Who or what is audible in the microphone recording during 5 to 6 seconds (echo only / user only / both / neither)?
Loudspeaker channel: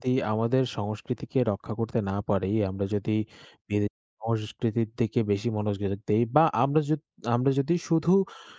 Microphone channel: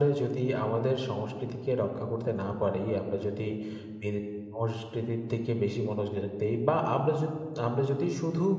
echo only